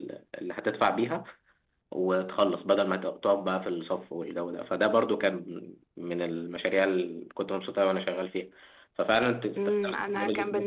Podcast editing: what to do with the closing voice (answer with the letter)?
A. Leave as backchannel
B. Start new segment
B